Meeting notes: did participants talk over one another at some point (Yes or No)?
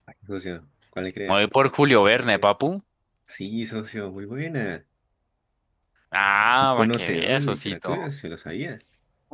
Yes